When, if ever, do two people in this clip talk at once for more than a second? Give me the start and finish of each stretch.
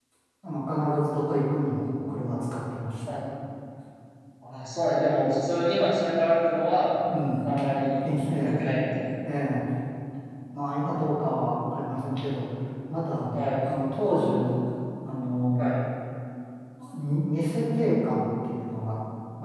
none

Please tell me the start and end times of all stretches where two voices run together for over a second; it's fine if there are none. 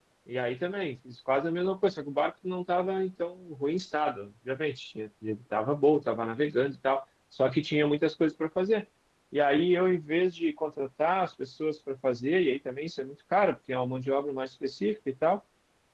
none

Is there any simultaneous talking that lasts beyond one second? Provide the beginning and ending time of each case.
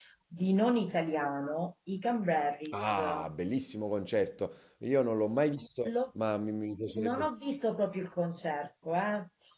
none

